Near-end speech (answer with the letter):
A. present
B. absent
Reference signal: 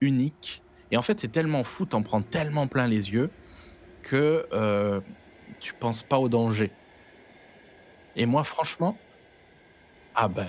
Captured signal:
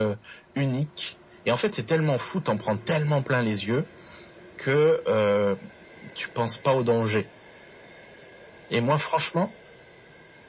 B